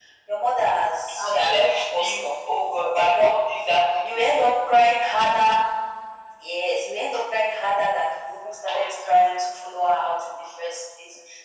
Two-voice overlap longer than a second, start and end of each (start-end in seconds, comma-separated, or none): 1.2-3.3